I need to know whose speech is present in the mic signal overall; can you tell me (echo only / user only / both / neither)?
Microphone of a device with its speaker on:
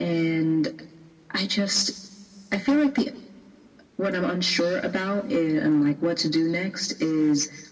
echo only